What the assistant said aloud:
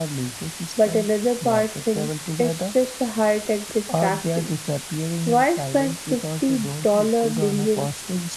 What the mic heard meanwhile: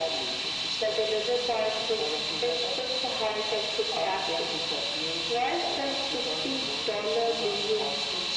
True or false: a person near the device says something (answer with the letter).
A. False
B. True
A